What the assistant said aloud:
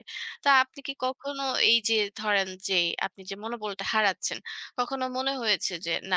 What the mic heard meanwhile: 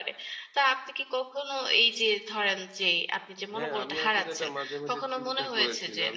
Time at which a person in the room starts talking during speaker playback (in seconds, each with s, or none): 3.5 s